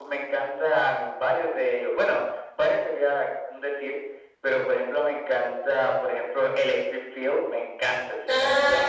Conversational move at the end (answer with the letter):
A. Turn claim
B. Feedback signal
A